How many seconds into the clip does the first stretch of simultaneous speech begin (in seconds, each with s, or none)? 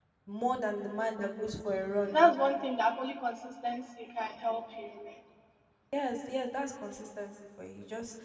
none